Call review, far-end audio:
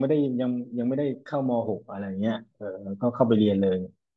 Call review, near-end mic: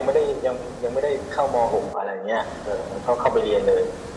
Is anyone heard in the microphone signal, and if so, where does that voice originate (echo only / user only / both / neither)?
echo only